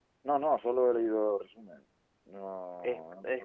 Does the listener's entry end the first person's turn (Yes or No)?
Yes